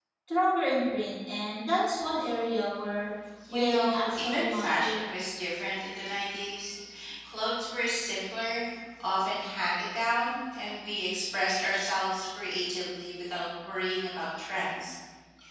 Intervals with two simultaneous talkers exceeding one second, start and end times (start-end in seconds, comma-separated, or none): 3.5-5.0